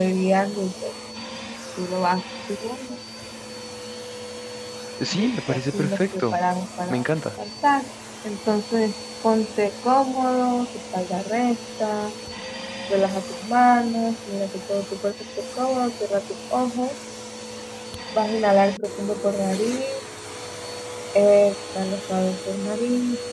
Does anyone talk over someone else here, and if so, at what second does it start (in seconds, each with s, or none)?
5.1 s